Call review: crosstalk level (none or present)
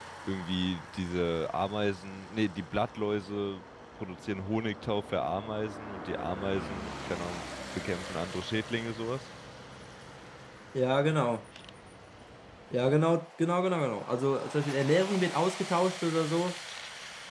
none